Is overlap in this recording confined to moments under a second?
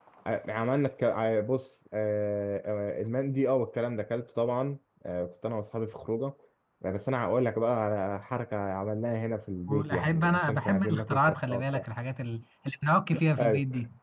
No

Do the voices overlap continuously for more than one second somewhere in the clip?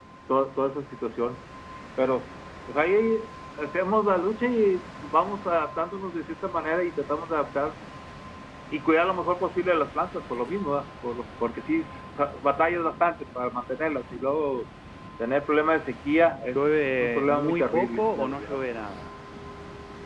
Yes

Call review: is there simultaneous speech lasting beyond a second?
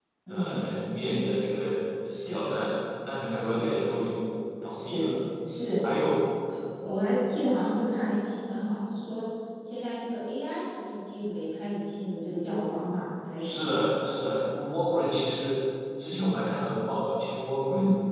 No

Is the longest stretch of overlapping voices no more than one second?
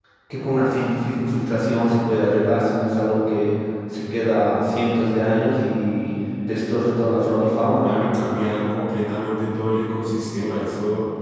Yes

